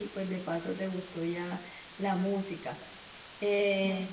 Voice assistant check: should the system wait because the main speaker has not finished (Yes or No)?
Yes